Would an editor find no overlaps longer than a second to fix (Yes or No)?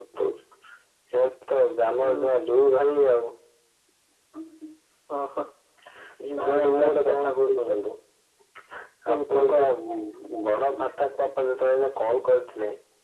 No